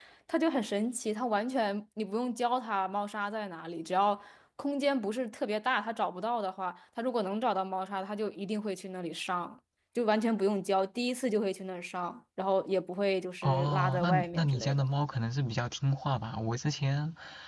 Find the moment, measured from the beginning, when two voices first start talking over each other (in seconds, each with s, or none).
13.4 s